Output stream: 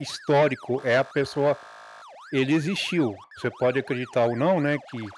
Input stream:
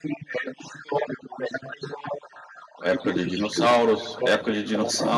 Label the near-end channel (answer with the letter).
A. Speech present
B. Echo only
A